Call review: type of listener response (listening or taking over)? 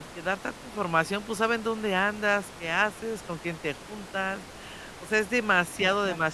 listening